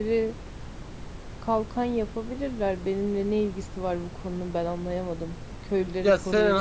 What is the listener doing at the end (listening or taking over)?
taking over